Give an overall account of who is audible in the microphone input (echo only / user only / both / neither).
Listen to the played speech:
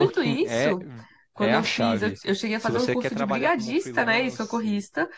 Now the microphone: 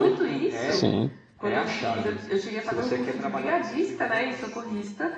both